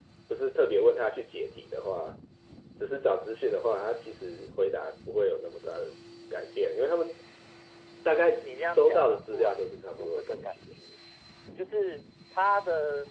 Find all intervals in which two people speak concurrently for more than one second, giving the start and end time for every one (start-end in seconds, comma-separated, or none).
8.4-10.6